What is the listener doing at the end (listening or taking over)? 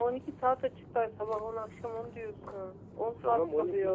taking over